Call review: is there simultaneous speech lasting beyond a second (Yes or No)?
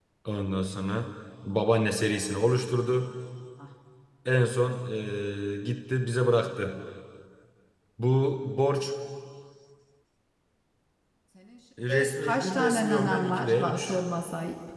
Yes